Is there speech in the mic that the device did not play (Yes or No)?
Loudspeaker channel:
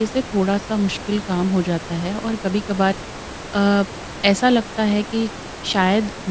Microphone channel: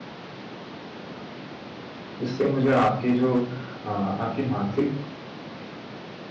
Yes